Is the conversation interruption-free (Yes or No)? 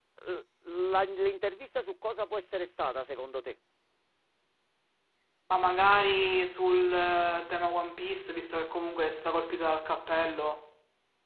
Yes